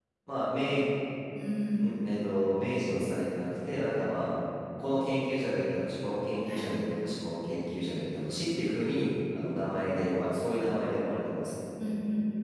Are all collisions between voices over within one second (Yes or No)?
Yes